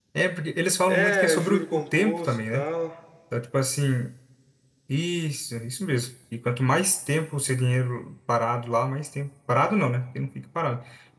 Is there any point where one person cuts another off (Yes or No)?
Yes